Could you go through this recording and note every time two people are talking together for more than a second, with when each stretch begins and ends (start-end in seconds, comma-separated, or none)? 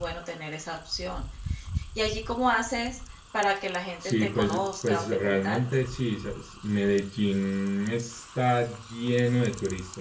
4.0-5.8